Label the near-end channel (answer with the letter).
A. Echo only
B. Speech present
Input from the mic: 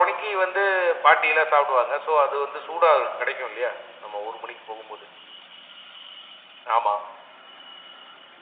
A